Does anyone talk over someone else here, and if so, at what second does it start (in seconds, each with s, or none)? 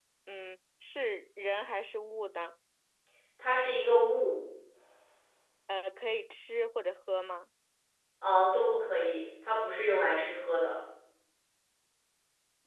none